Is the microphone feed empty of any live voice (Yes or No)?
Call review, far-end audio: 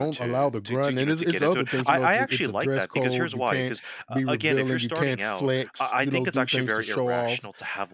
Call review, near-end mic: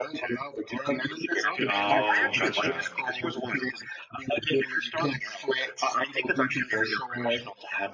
No